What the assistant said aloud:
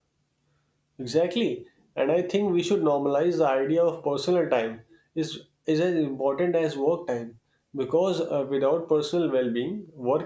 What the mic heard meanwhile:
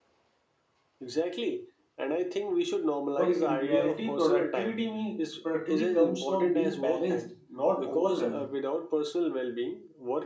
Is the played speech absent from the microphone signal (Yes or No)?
No